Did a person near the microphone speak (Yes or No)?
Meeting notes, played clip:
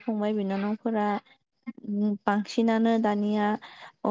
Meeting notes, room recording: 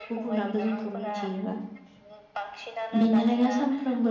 Yes